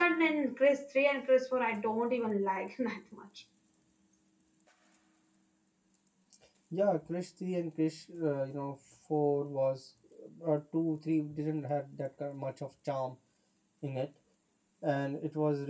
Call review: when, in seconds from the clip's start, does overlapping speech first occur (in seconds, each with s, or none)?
none